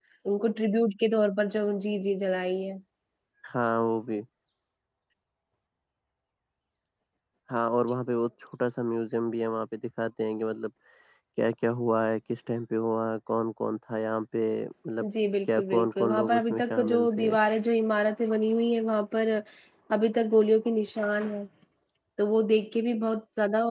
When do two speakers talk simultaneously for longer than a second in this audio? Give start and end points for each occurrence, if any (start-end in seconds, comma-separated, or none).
15.6-17.3